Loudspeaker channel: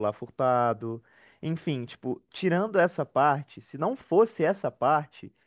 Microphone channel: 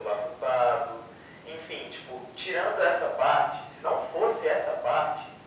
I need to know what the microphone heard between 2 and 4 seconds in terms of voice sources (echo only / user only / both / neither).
echo only